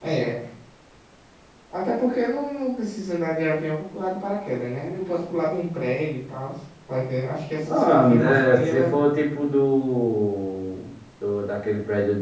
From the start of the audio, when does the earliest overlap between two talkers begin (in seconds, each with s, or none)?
7.6 s